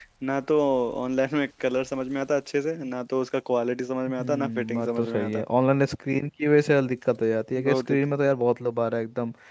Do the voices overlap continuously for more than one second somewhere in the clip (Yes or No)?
Yes